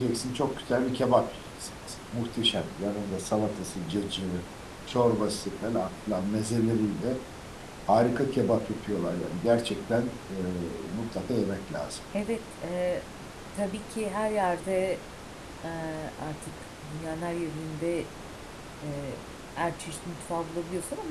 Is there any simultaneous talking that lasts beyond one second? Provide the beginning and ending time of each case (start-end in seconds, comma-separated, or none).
none